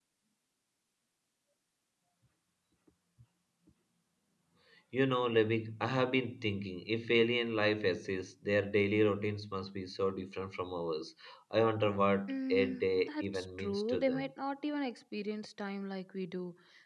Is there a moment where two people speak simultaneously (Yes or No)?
Yes